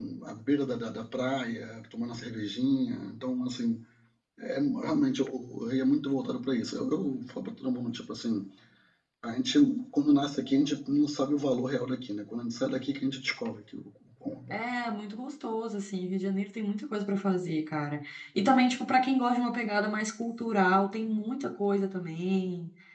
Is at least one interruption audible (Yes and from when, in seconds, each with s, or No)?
No